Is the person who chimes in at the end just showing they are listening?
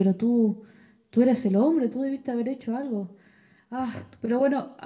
Yes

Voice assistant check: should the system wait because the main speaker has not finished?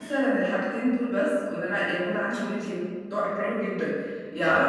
Yes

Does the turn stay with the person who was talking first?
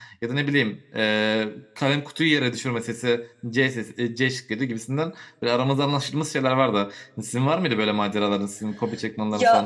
No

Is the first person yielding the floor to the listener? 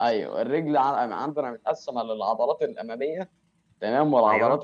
No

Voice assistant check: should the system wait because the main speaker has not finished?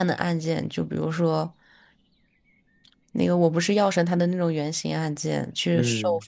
Yes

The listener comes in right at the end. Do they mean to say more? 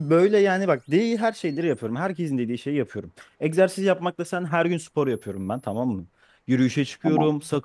No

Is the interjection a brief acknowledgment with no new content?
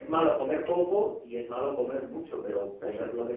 Yes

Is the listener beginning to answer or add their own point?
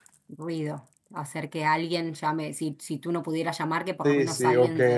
Yes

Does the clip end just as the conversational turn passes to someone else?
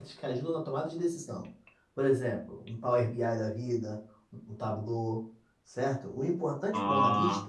No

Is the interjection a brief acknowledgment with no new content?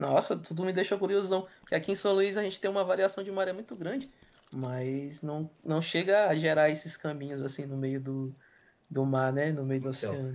No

